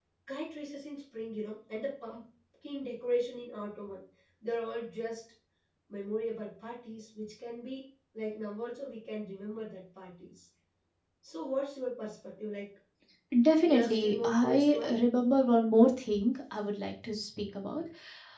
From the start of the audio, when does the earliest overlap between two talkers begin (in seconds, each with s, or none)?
13.6 s